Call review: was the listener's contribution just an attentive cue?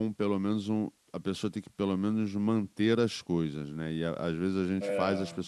Yes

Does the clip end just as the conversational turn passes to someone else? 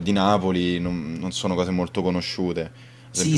Yes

